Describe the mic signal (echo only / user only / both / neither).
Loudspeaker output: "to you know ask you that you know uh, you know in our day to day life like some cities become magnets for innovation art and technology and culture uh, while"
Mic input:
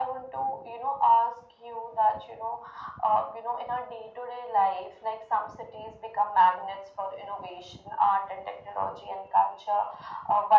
echo only